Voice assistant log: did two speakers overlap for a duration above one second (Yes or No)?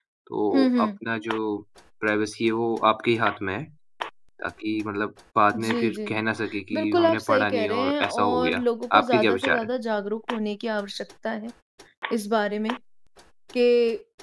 Yes